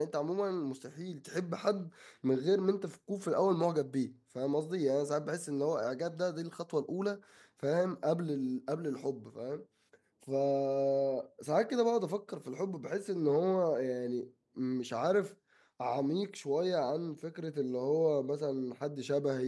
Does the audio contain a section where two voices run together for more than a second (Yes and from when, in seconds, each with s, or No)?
No